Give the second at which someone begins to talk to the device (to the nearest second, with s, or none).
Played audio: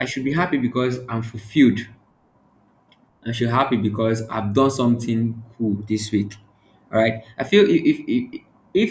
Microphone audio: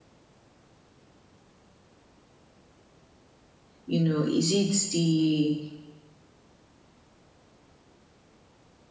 4 s